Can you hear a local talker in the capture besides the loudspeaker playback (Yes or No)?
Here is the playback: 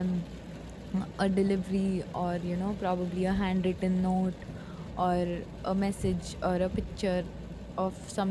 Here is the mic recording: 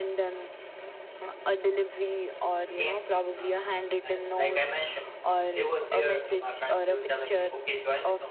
Yes